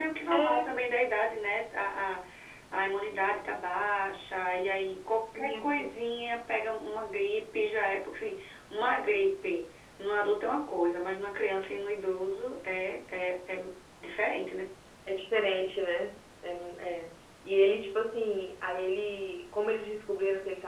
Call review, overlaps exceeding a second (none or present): none